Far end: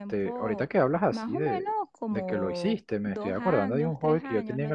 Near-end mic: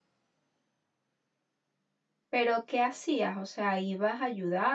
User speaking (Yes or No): Yes